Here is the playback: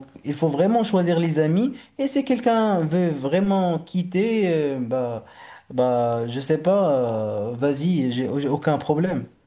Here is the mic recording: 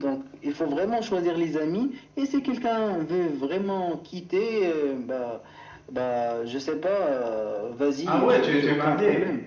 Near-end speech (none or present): present